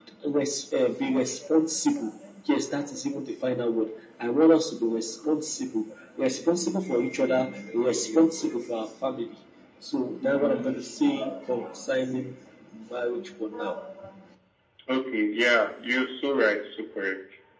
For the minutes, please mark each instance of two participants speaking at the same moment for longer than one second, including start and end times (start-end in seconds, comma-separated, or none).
none